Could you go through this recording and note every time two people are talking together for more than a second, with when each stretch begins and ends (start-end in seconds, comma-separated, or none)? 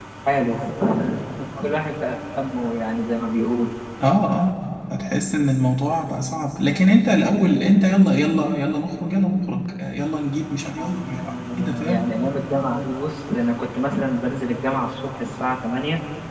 10.8-12.1